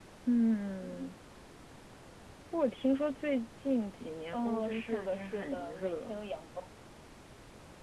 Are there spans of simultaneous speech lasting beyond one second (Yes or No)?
Yes